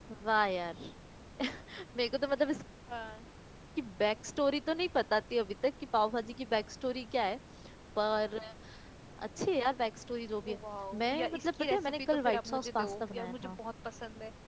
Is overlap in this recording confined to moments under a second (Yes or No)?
No